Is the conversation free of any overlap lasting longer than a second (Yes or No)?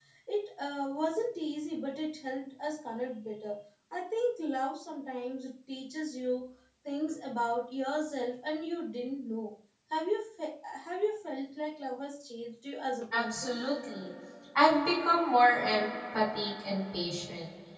Yes